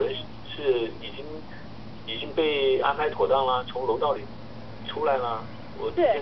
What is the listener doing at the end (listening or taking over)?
taking over